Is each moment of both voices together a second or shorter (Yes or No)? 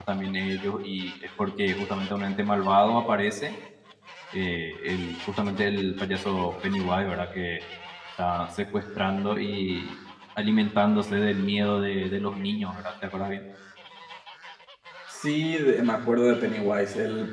Yes